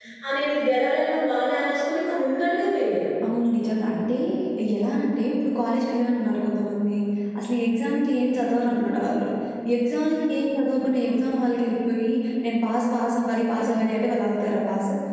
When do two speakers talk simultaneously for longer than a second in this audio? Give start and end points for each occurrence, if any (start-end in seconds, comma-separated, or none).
none